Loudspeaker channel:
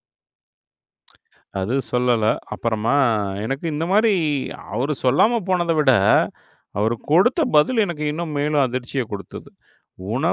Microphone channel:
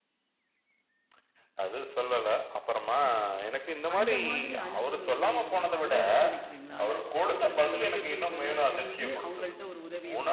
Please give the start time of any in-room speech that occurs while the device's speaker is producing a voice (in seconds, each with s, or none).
3.9 s